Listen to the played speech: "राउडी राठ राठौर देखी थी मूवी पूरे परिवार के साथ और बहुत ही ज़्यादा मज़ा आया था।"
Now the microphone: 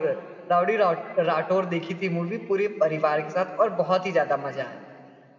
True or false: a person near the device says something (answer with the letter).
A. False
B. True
A